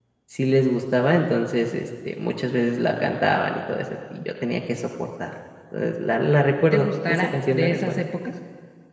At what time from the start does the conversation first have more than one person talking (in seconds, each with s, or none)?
6.7 s